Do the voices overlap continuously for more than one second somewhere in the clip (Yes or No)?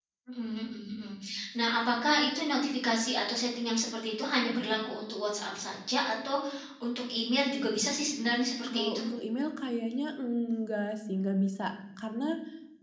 No